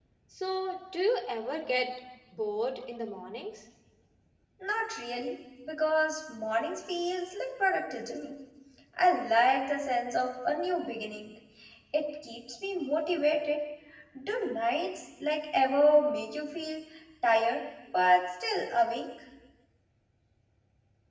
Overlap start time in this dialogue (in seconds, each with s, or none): none